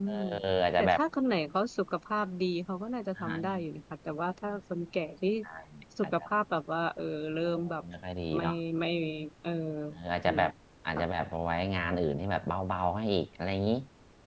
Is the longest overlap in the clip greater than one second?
No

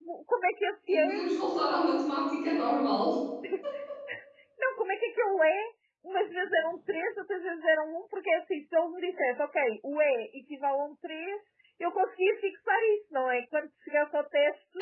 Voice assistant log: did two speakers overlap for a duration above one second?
No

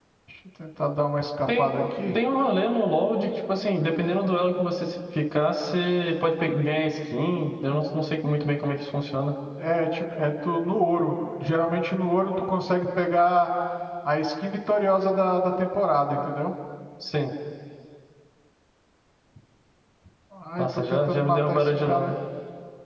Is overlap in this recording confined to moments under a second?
No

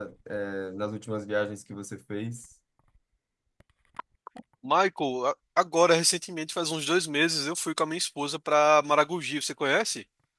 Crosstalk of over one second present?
No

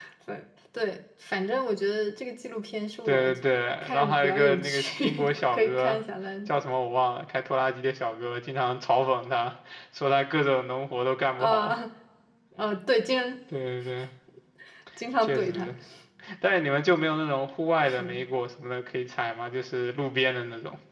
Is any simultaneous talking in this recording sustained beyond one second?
Yes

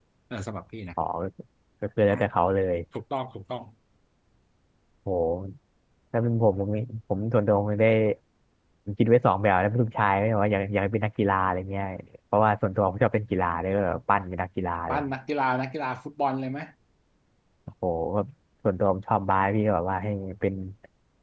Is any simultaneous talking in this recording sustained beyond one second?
No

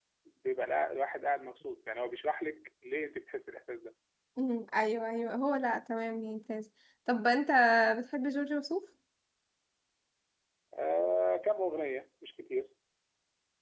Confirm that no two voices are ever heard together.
Yes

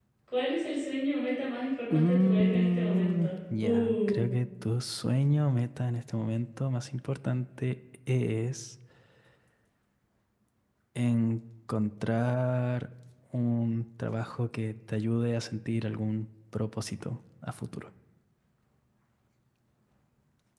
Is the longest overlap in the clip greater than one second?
Yes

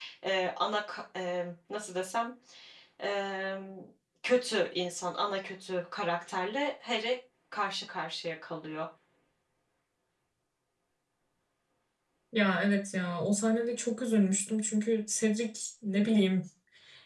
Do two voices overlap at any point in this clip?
No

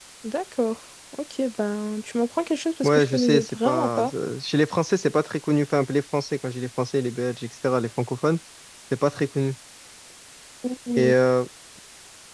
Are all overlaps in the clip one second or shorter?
No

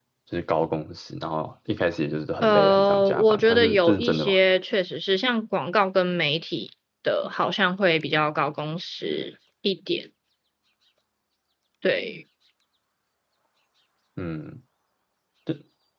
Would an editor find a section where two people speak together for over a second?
Yes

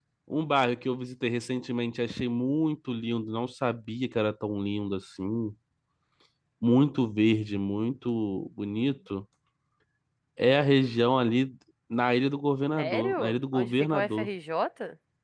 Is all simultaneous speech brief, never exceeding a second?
No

